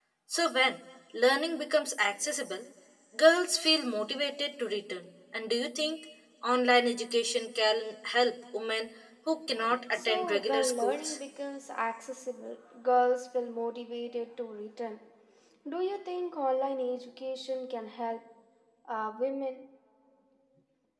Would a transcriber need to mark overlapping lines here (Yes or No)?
Yes